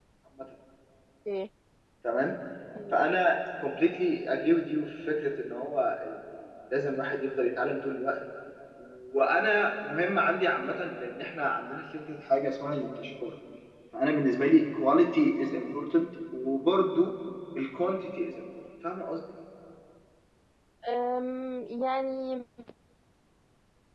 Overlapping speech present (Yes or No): No